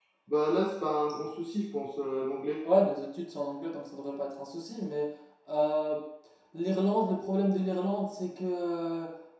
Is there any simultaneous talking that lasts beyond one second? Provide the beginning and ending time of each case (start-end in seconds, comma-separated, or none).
none